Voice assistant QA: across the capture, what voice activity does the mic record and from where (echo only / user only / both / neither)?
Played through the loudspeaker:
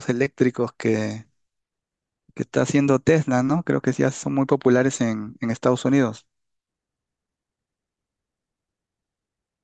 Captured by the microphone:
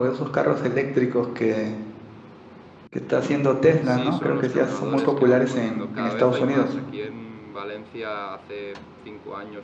both